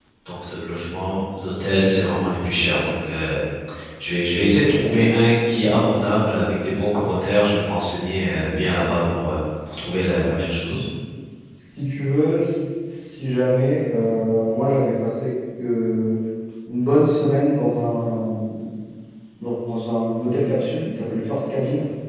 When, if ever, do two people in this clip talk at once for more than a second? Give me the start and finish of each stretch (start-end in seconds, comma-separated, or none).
none